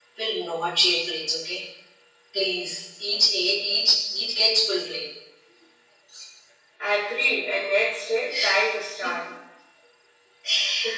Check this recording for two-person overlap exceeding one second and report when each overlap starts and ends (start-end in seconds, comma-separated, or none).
none